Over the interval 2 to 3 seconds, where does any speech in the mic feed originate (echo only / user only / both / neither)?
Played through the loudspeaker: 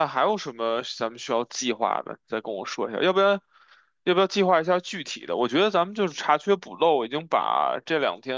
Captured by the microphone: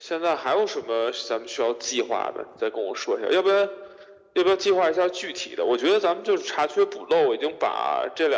echo only